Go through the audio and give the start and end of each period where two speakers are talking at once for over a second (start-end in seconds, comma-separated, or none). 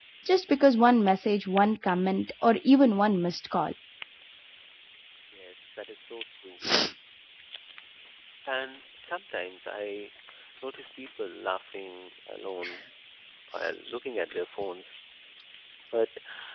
none